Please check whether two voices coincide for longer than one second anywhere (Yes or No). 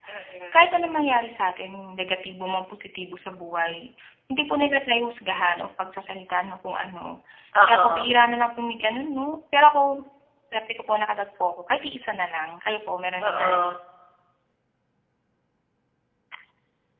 No